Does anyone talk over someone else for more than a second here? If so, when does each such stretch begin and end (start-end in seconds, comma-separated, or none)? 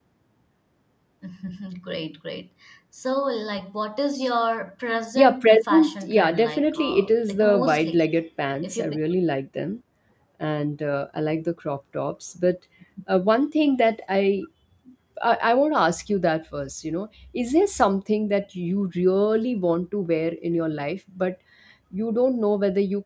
5.2-8.0